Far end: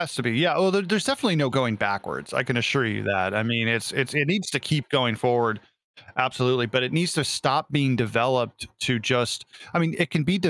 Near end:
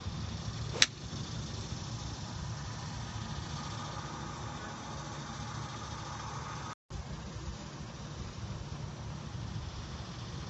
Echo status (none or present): none